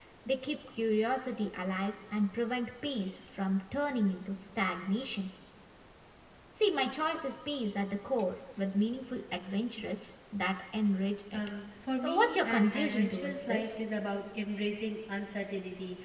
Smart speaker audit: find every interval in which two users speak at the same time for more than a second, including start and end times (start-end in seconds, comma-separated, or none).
12.0-13.7